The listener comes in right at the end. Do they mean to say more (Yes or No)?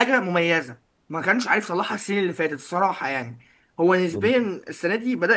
No